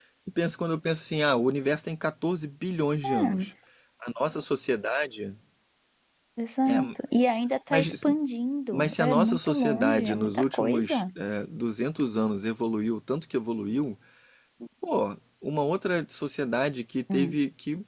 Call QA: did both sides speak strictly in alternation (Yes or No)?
No